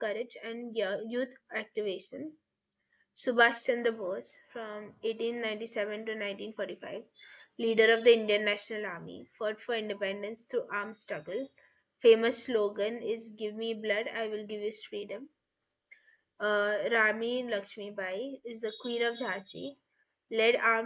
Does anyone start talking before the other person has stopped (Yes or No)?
No